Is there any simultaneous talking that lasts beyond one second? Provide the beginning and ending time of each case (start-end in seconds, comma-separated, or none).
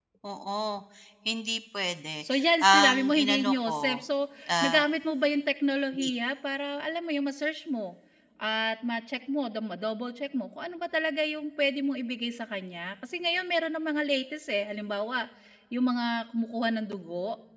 2.2-4.0